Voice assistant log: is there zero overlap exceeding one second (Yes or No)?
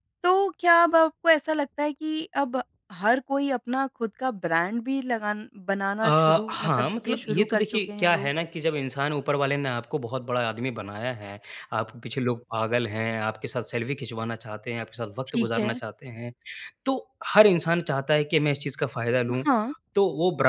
No